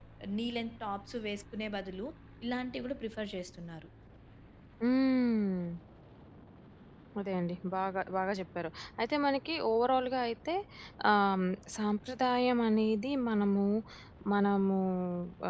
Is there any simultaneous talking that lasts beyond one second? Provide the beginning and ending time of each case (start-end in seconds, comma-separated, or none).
none